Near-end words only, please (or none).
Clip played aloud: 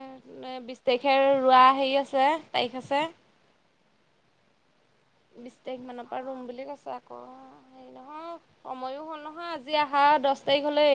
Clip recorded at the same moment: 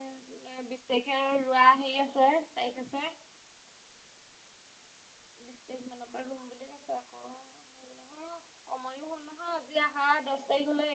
none